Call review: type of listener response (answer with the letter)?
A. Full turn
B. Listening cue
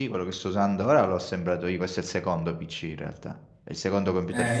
A